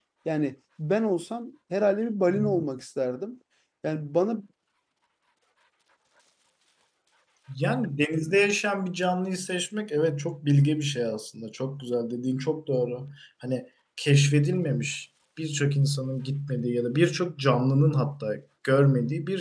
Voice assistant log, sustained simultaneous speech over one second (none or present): none